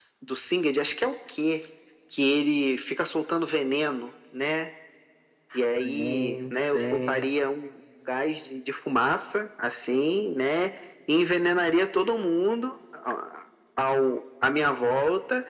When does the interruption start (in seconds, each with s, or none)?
5.6 s